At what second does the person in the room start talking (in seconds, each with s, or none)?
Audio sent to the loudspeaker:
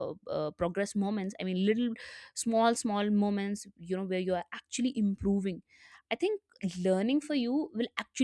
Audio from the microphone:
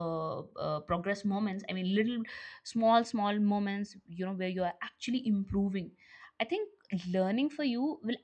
none